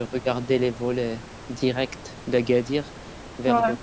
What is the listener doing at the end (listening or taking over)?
listening